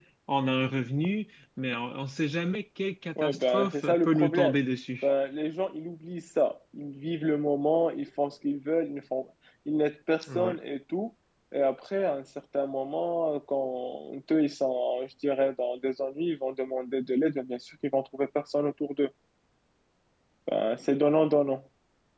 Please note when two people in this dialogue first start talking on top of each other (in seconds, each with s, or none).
3.2 s